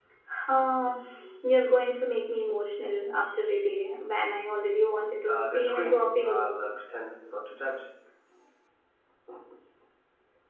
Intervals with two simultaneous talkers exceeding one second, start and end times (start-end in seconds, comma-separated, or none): 5.3-6.5